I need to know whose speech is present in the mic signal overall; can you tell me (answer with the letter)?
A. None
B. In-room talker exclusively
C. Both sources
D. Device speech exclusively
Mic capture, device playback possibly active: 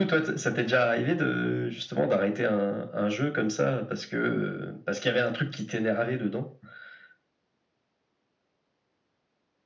D